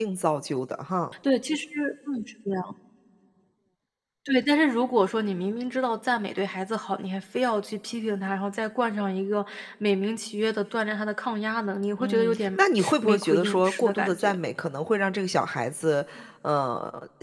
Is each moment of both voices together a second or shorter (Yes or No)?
No